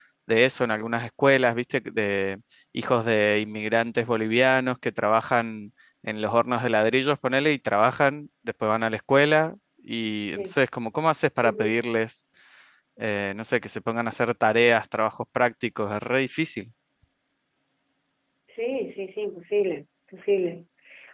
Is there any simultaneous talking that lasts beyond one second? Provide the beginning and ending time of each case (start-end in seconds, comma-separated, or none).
none